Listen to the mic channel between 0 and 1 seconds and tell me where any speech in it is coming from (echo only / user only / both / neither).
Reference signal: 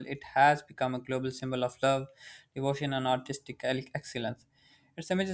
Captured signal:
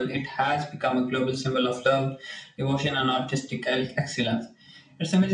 echo only